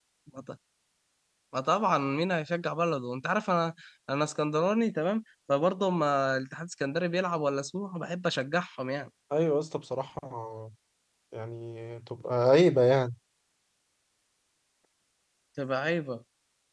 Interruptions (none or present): none